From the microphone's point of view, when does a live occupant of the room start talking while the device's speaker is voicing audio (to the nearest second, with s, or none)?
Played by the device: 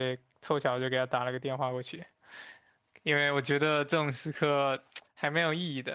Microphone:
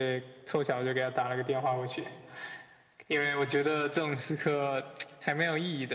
none